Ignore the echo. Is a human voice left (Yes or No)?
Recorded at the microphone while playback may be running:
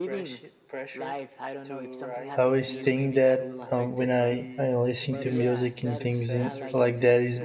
Yes